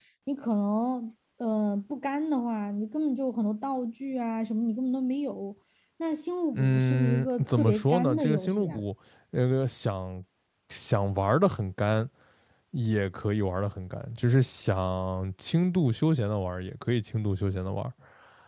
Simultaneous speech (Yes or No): Yes